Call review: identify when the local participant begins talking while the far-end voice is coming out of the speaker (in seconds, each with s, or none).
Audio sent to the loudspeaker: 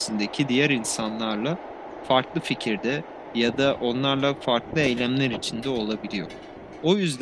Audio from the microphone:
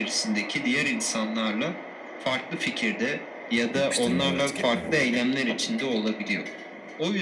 3.7 s